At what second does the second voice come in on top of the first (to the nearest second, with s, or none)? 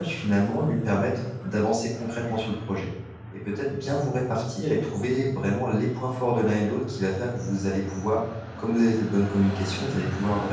none